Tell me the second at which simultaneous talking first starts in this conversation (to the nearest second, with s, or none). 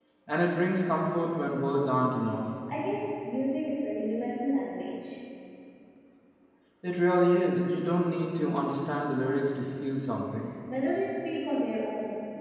none